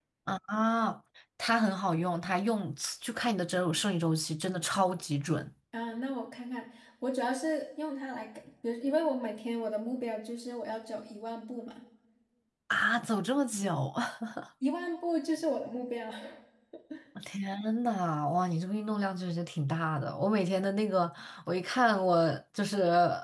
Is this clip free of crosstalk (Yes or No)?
Yes